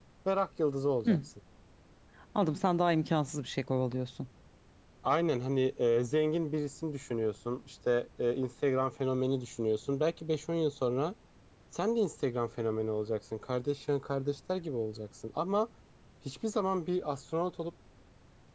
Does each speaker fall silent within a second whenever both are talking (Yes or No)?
Yes